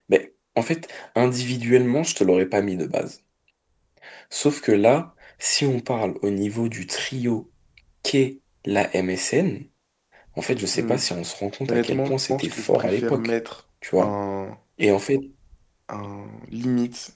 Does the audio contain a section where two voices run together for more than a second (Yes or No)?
Yes